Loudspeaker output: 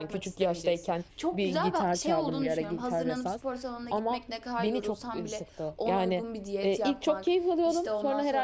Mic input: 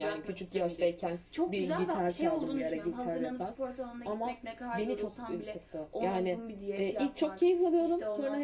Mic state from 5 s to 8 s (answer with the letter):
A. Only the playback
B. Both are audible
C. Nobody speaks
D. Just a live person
A